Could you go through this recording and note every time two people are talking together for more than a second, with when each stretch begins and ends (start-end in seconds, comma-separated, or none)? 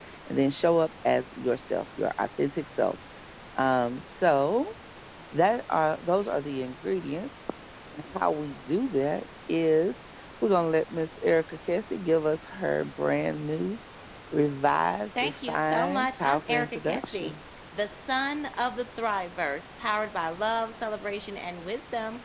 15.2-17.3